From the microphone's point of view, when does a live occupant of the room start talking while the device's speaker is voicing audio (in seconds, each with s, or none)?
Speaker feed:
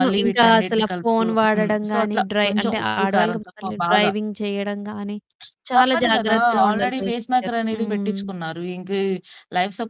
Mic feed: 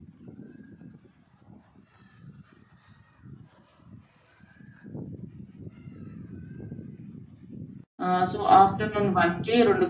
8.1 s